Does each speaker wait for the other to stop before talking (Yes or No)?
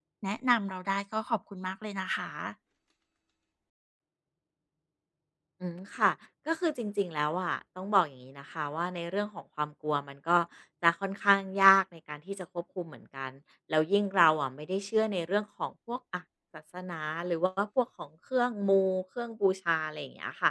Yes